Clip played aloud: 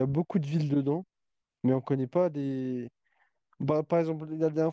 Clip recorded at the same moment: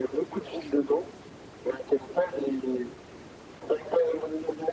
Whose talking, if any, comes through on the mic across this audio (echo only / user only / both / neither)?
echo only